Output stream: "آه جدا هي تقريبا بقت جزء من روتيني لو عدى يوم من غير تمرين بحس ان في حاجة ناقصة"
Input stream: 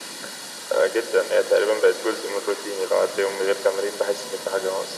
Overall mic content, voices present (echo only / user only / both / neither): echo only